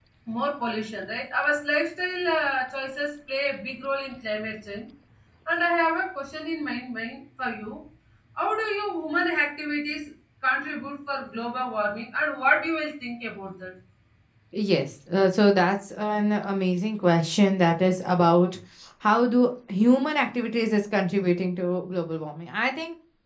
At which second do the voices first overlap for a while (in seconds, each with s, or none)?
none